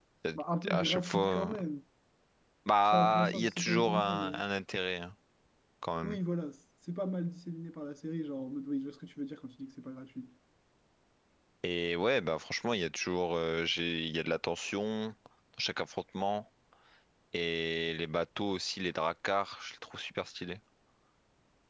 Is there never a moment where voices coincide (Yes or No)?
No